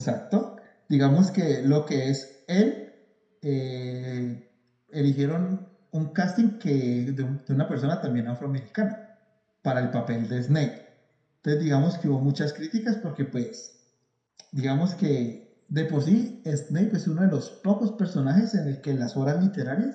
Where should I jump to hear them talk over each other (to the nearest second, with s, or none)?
none